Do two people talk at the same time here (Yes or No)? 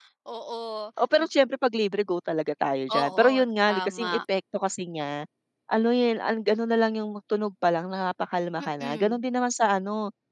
Yes